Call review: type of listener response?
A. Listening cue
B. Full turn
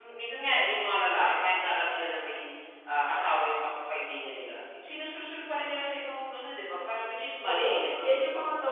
B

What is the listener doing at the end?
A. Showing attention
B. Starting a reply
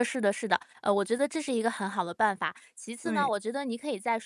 A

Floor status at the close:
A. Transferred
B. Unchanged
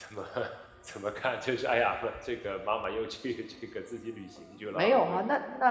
A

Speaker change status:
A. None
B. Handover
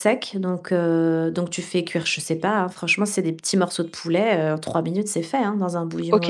B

